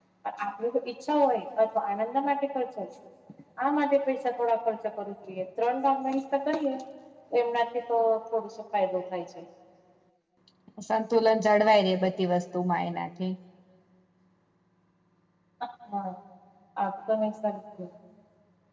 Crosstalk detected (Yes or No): No